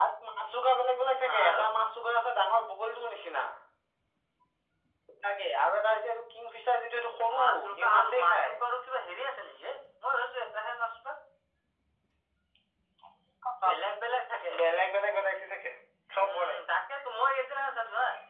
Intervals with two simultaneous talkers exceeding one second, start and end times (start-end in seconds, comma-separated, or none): 7.3-8.6